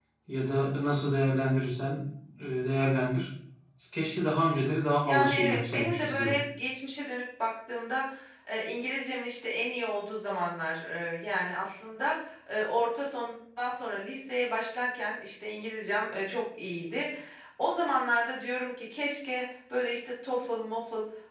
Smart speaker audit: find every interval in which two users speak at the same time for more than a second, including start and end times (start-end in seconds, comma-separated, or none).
5.0-6.4